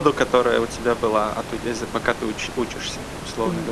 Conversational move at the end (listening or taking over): taking over